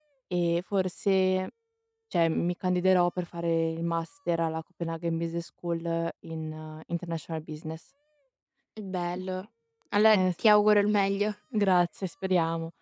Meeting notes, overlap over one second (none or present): none